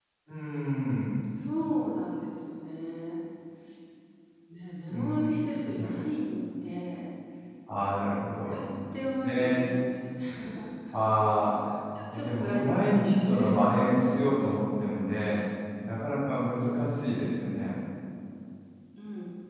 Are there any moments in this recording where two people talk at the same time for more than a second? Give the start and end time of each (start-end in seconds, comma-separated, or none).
12.1-13.5